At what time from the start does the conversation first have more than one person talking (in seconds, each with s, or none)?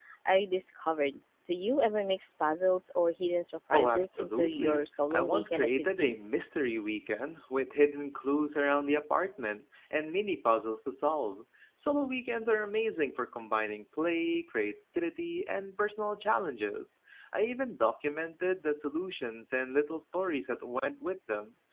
3.7 s